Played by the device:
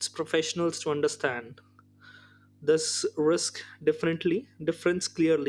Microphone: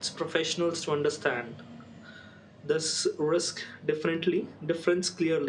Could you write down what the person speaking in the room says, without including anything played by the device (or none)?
none